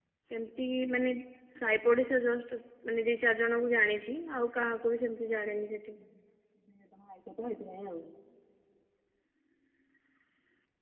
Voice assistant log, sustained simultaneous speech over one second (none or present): none